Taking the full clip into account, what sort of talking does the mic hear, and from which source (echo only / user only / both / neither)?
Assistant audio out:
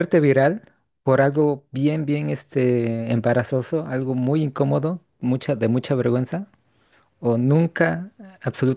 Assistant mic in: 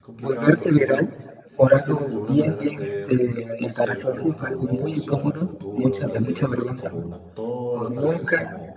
both